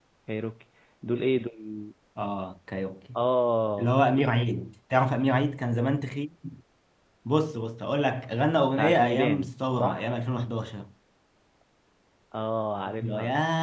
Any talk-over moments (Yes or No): Yes